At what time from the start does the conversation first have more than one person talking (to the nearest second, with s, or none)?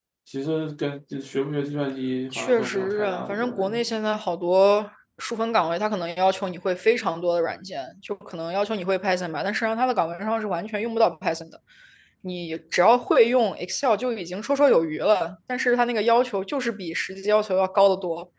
2 s